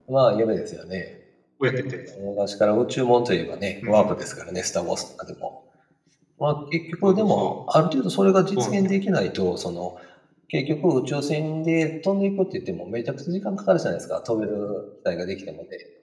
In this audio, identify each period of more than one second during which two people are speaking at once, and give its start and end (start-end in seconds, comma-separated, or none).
none